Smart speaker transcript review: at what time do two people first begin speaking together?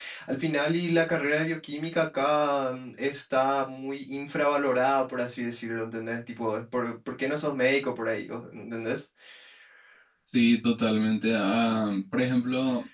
none

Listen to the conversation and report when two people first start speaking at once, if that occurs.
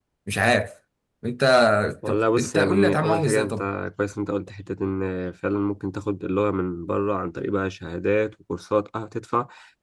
2.1 s

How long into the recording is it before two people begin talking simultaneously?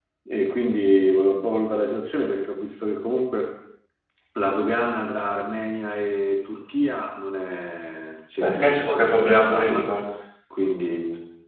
8.4 s

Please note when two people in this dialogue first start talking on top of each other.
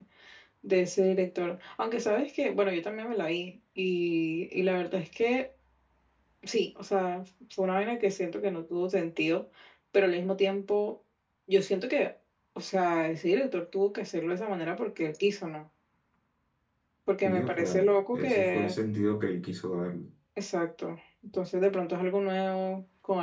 17.2 s

